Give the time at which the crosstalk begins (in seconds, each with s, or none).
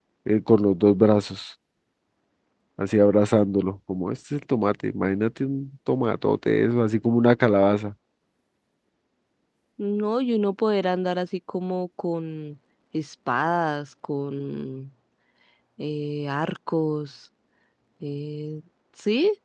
none